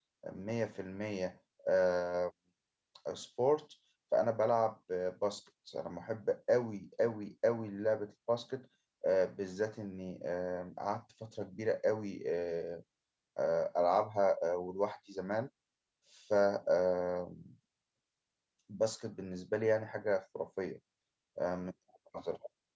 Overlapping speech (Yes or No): No